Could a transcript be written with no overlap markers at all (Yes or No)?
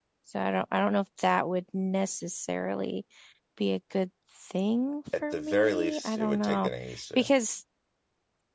No